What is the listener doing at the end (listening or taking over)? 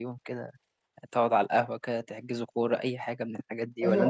taking over